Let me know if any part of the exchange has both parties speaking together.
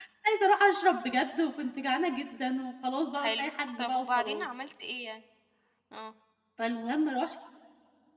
Yes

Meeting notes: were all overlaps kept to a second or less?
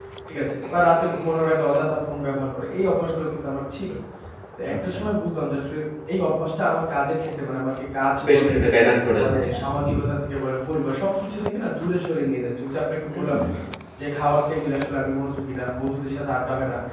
Yes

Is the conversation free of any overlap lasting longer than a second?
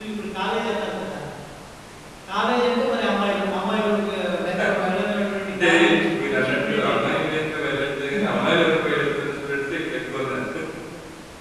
No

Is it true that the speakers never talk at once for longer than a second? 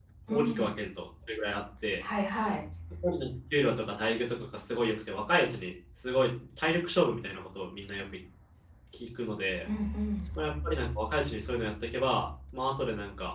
Yes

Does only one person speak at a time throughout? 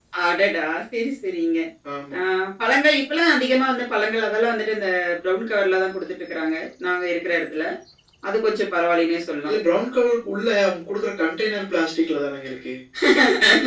Yes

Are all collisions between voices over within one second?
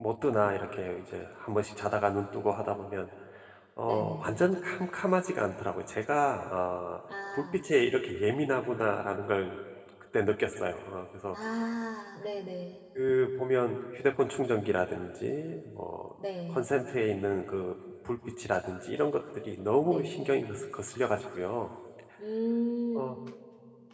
Yes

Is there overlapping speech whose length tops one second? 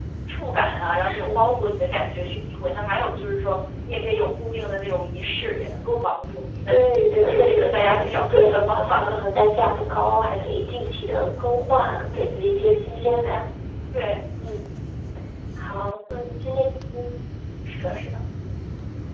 Yes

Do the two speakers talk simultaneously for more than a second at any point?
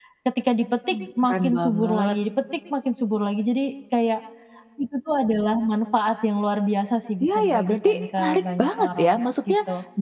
Yes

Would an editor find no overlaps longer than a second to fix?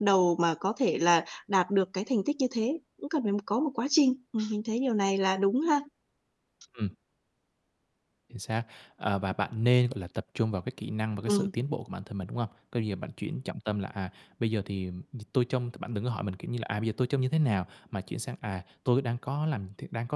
Yes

